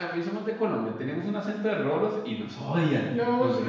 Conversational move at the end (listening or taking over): taking over